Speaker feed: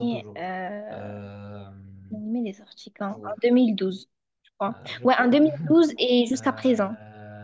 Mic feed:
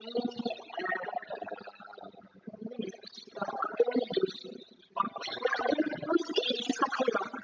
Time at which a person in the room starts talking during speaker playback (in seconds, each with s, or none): none